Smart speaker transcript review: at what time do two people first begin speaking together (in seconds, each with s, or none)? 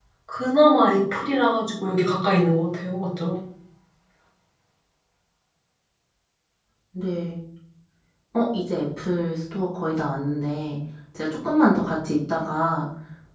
none